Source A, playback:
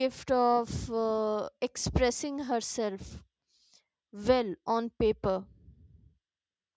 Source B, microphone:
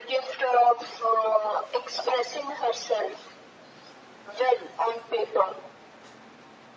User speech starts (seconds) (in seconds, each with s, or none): none